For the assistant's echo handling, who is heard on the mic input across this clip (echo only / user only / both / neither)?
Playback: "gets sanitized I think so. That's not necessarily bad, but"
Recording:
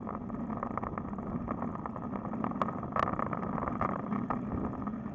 neither